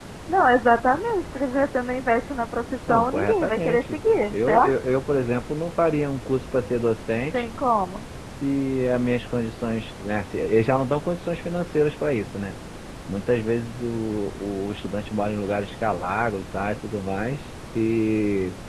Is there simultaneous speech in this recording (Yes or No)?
Yes